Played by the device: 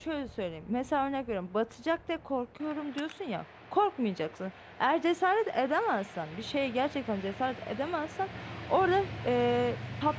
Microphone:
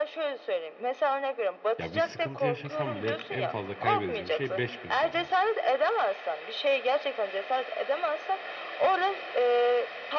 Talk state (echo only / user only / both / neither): both